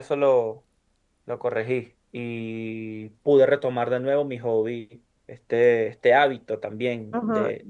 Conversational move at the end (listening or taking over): taking over